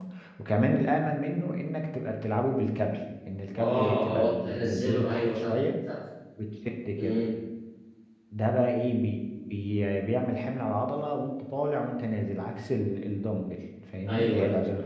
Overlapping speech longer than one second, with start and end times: 3.6-5.5

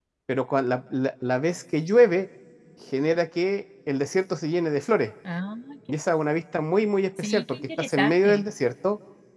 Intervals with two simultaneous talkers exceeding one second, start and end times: 7.2-8.4

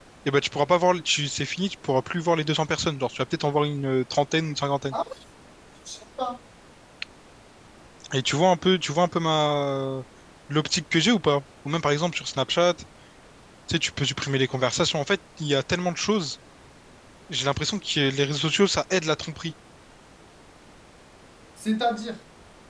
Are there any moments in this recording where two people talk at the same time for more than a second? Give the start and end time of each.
none

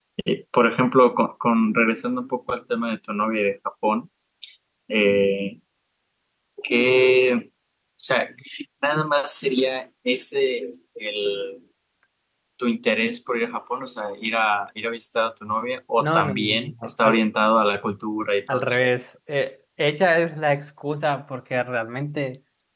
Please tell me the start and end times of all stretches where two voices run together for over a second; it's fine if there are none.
16.0-17.2

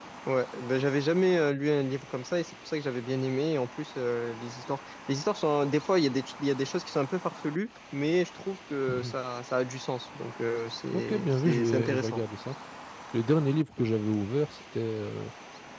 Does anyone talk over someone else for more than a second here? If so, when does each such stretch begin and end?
10.9-12.2

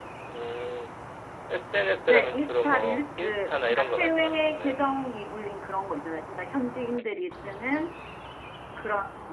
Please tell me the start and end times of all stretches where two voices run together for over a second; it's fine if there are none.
2.1-4.8

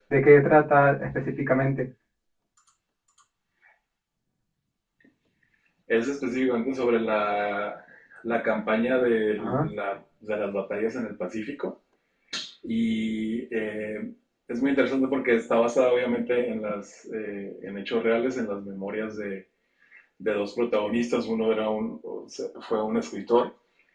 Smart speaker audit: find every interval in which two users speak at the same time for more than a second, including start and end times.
none

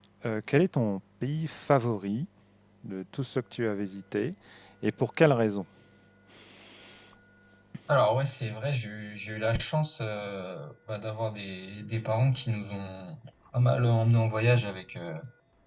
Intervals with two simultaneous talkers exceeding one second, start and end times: none

